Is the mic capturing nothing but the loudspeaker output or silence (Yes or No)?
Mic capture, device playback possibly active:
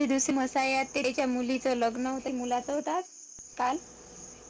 Yes